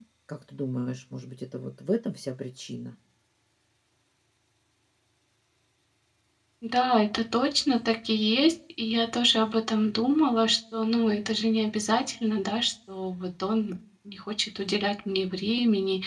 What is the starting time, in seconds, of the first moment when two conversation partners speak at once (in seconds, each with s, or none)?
none